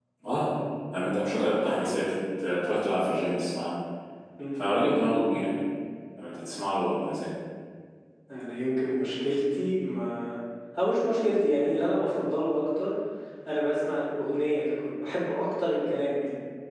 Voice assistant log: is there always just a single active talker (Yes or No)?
Yes